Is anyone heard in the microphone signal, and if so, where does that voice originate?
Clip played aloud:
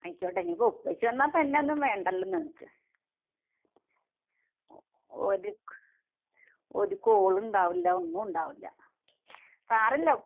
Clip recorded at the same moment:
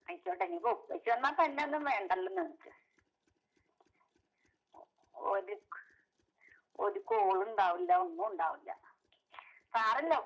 echo only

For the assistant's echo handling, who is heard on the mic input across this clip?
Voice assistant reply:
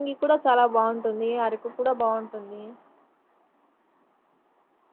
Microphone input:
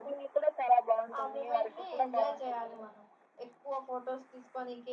both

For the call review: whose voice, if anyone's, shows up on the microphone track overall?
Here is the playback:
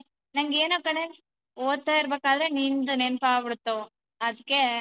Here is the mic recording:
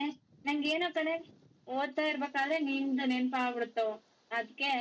echo only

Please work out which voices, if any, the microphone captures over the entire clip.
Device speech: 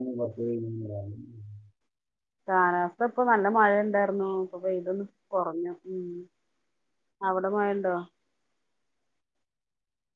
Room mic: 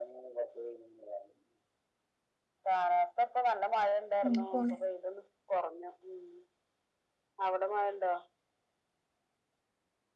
both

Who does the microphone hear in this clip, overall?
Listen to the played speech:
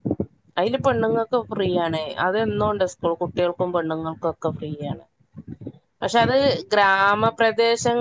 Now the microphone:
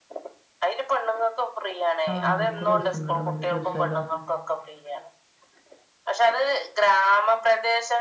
both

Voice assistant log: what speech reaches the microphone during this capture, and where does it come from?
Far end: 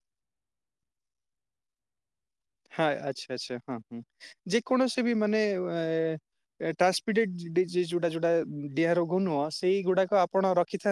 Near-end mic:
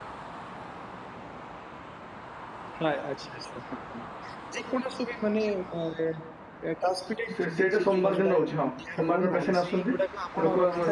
both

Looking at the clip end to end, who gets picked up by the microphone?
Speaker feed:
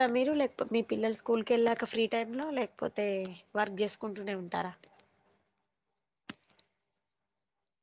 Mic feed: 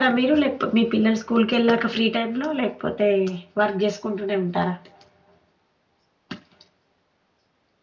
echo only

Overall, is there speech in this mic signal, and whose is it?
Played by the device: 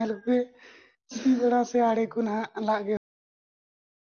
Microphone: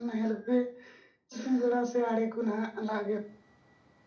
echo only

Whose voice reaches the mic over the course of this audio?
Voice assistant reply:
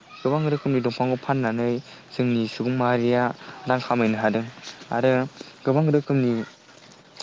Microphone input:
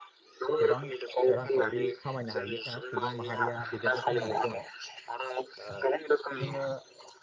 both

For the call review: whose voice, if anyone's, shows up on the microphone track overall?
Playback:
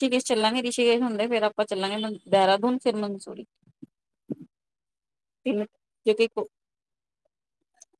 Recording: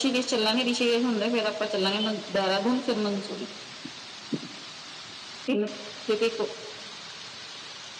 echo only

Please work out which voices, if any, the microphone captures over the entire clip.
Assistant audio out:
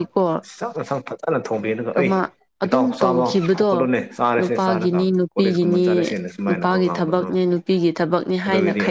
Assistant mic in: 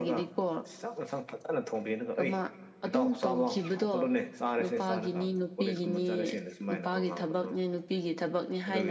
echo only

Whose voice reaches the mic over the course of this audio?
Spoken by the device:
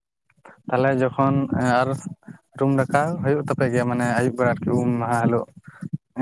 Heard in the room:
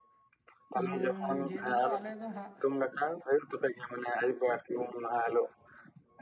both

